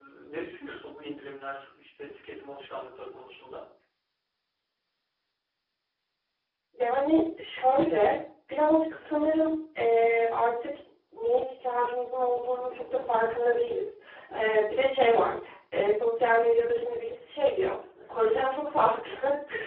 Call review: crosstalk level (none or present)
none